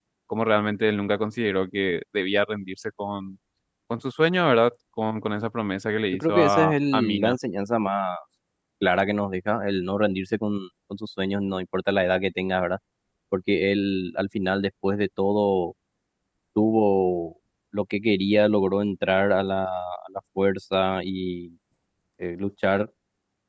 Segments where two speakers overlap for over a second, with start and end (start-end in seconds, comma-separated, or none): 6.1-7.4